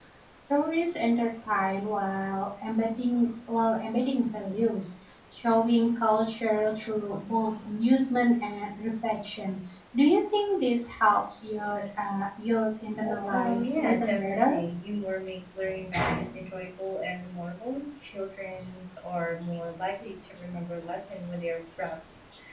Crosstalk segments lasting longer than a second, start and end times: 13.3-14.6

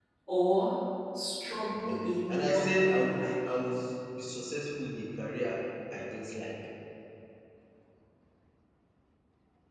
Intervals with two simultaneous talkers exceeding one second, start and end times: 1.9-3.4

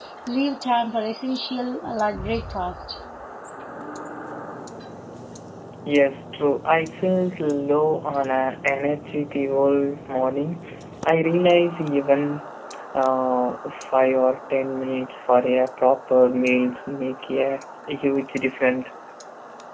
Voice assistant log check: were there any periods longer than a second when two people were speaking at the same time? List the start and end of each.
none

